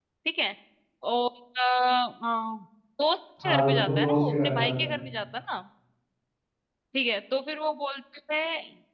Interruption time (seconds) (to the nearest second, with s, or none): 3 s